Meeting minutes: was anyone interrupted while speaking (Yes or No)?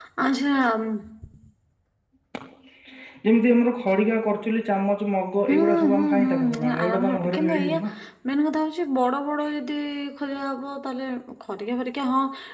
Yes